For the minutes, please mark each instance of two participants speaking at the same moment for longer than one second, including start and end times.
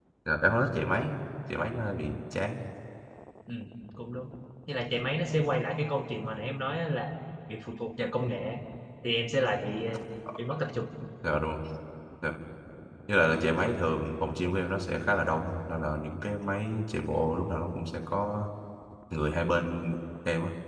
none

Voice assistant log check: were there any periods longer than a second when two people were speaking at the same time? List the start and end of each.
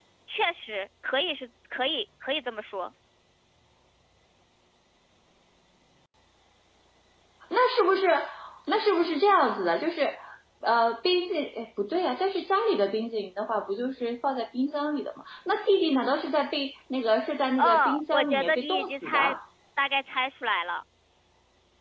17.6-19.3

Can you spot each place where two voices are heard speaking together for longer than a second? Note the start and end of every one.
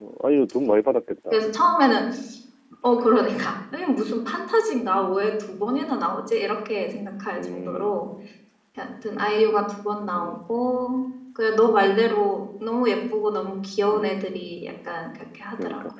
none

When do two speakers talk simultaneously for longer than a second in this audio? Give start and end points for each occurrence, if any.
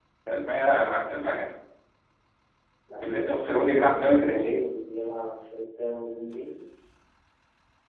3.0-4.6

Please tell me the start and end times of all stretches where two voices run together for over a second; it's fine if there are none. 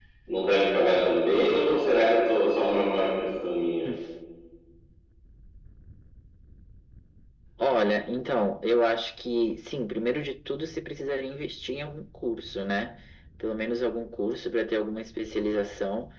none

